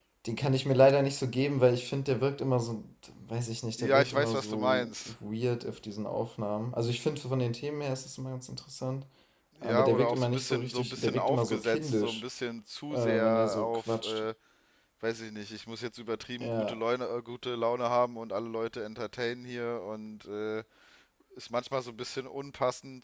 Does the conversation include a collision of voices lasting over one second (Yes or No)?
Yes